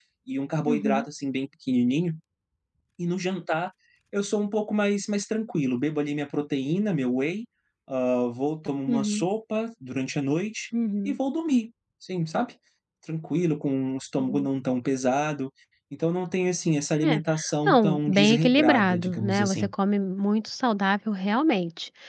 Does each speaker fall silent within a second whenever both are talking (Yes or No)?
No